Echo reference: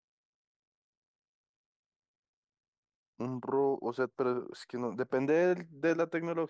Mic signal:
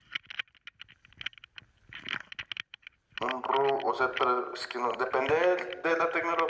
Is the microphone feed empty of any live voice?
Yes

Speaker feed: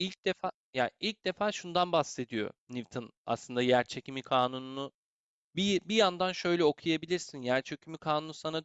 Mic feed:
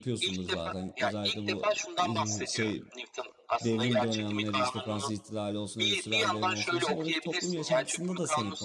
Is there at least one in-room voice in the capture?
Yes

